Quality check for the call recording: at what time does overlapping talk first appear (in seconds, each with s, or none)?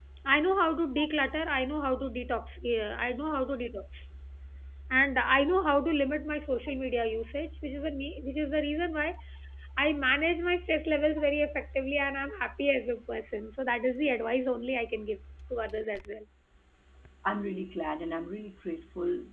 none